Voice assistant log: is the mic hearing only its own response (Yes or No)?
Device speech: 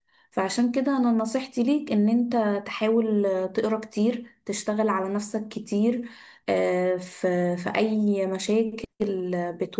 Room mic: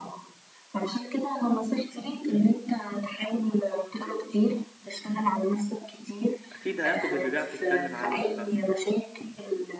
No